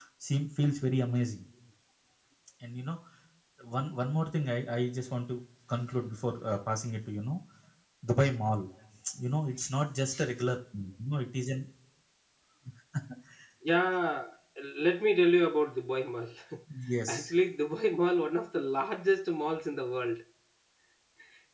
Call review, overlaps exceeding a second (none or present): none